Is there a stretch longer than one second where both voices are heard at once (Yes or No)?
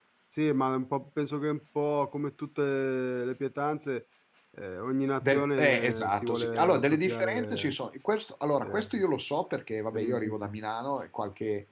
Yes